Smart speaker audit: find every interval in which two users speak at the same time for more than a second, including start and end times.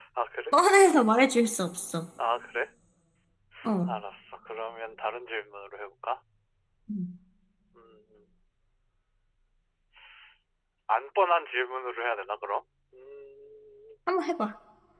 none

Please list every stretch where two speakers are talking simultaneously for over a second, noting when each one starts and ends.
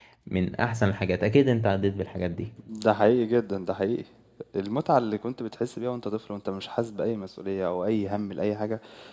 none

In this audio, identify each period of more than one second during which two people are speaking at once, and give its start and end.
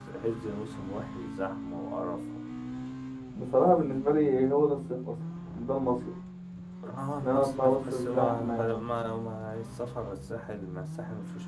7.2-8.8

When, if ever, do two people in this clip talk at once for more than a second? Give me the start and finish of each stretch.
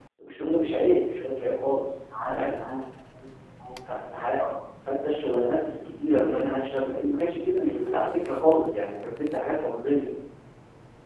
6.0-8.1

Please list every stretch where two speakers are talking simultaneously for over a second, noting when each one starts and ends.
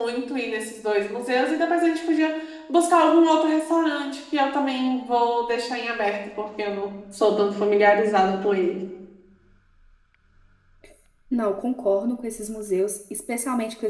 none

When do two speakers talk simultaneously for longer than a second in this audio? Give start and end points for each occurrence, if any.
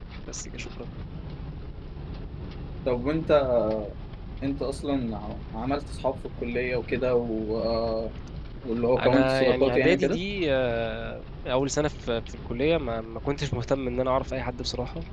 9.0-10.2

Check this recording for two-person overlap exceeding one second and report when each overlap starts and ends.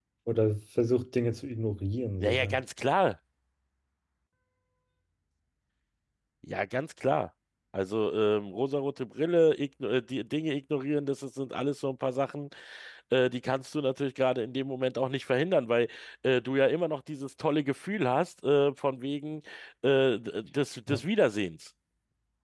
none

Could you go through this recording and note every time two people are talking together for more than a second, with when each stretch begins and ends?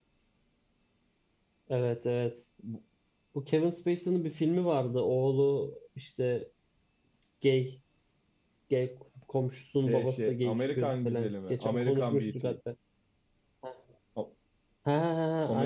9.9-12.5

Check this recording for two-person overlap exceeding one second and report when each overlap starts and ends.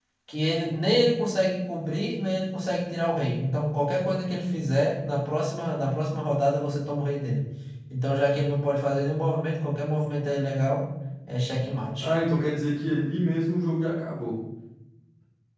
none

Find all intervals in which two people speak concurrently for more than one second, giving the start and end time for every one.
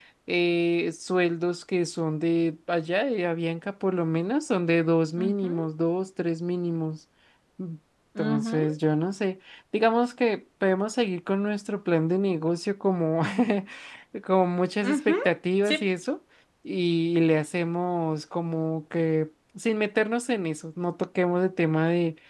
none

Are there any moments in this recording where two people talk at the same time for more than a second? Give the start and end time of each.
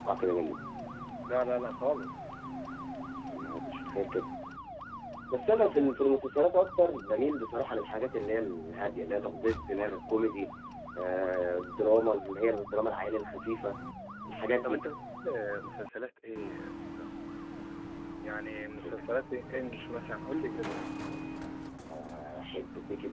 none

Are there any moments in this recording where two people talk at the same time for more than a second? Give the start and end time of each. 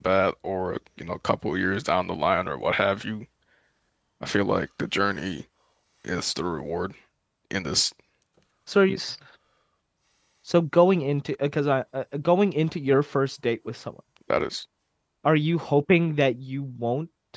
none

